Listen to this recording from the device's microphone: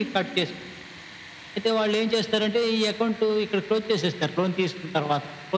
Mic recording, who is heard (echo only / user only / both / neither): echo only